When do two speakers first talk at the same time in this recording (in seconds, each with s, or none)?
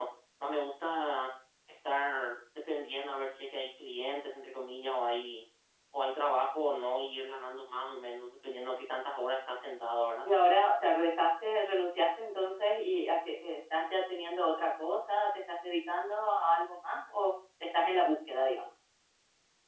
none